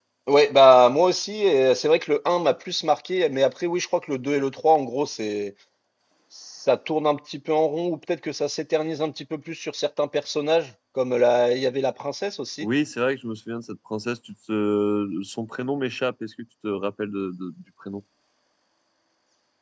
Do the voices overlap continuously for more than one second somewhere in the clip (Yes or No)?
No